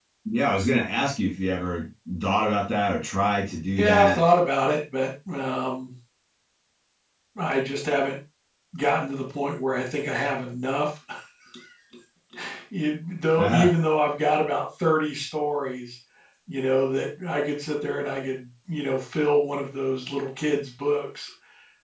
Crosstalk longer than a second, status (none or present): none